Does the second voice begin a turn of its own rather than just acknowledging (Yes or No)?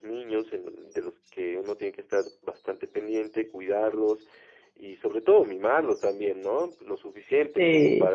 No